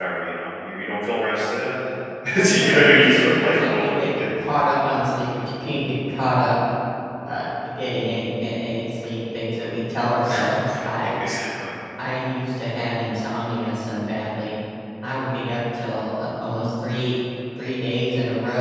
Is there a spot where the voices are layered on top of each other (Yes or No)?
Yes